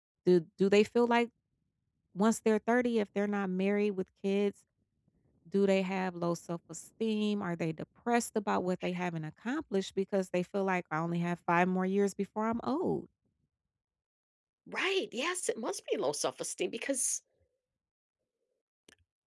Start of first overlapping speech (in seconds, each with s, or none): none